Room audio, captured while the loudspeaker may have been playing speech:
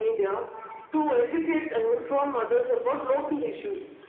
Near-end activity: none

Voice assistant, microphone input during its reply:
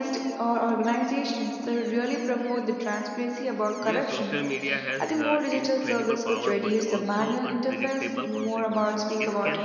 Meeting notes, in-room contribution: present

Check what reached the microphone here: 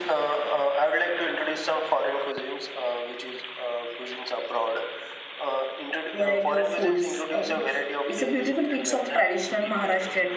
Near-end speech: present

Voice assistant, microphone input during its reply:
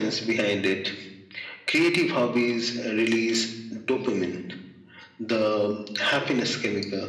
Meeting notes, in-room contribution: none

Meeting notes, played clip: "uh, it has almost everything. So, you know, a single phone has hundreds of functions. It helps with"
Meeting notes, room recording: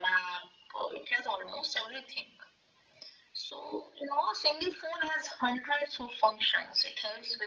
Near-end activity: none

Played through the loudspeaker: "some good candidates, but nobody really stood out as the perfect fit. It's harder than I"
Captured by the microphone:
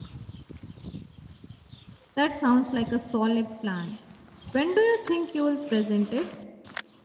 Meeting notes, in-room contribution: present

